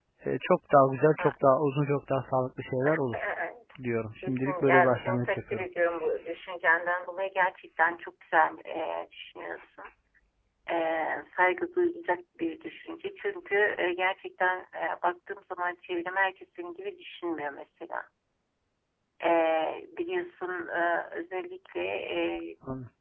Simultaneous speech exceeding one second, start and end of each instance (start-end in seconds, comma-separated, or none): 4.2-5.6